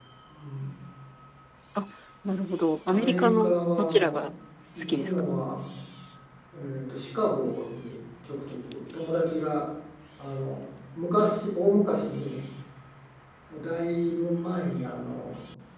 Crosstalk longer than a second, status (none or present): present